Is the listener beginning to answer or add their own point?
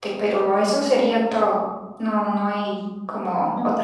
Yes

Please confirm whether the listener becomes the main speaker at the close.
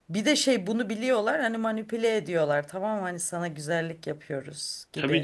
Yes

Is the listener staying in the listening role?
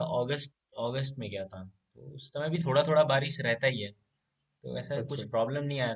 Yes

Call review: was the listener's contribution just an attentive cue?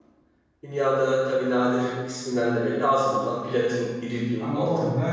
No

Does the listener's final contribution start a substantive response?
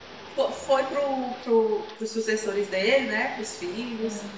No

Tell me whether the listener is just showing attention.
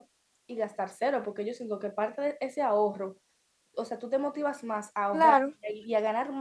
Yes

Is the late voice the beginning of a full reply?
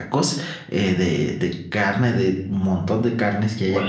Yes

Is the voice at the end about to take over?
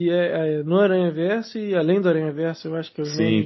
Yes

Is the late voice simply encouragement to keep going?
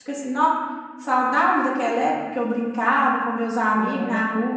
Yes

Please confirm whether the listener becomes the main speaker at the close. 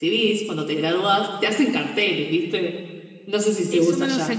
Yes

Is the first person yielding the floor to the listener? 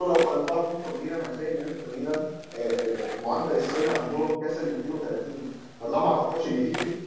No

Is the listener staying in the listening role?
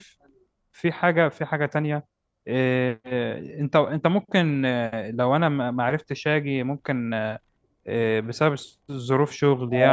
Yes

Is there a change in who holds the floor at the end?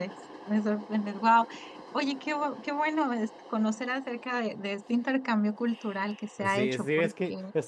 Yes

